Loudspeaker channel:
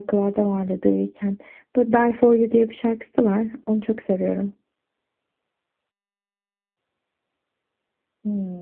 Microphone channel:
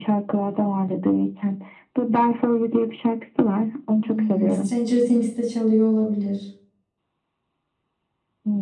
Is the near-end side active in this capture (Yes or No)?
Yes